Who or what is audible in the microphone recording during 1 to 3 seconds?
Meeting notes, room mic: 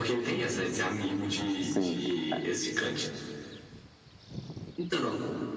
both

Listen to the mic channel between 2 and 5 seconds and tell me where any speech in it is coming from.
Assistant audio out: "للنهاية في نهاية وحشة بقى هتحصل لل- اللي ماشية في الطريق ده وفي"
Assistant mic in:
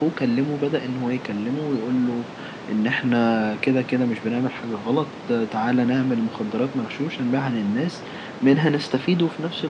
user only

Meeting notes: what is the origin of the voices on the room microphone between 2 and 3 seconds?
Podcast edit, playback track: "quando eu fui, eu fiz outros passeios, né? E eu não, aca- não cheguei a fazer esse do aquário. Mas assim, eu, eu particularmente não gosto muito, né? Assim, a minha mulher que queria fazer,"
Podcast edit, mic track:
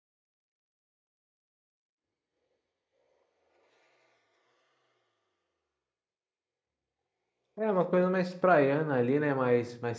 neither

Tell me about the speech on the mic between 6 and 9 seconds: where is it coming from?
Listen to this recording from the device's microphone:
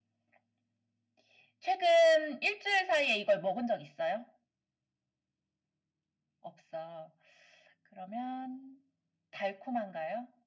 echo only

